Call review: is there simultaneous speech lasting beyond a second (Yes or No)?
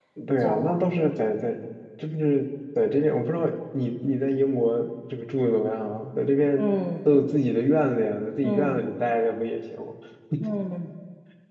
No